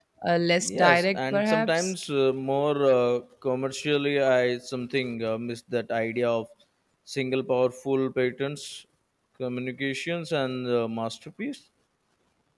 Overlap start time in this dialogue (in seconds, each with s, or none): 0.6 s